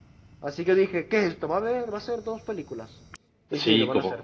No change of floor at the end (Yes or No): No